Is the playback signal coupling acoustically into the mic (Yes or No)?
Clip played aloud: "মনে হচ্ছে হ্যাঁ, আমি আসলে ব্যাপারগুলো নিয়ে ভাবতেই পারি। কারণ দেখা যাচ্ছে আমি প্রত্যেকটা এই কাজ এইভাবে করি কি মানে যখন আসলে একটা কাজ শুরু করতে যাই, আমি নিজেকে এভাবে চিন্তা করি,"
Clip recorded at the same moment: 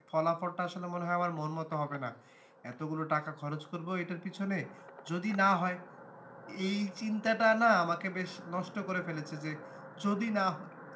No